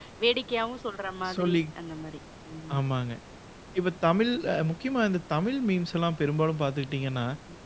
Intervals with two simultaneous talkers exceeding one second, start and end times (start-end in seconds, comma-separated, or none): none